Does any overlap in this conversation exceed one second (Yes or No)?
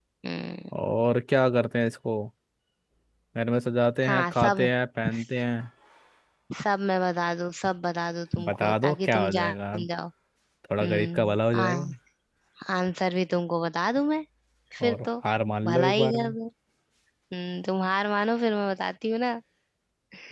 Yes